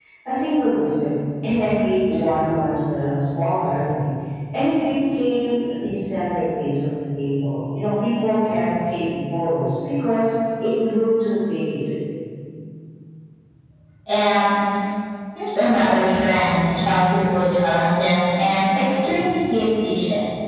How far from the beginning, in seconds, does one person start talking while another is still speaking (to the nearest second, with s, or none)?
none